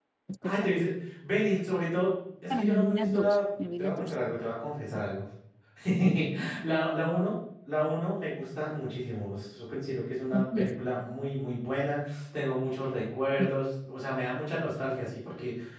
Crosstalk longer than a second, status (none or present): present